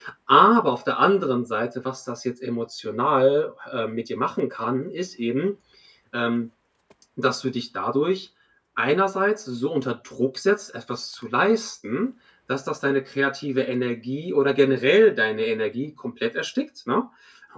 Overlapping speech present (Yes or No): No